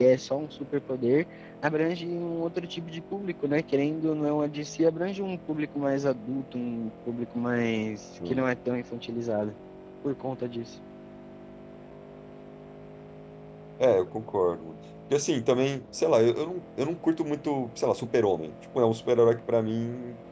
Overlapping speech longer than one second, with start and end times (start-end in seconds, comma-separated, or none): none